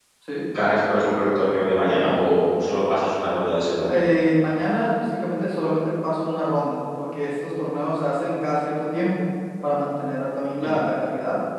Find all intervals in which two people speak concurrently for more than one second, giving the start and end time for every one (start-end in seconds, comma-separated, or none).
none